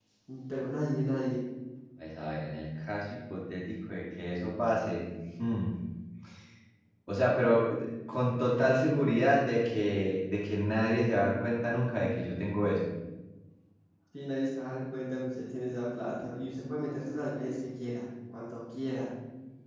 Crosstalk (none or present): none